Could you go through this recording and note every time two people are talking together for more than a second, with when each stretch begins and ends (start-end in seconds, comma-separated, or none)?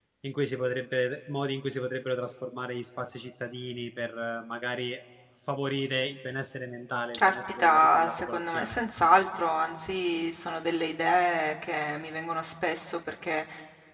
7.2-8.8